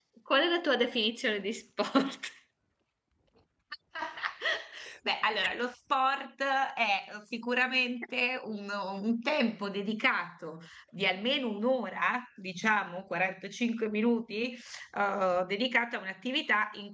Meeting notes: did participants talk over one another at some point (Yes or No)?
No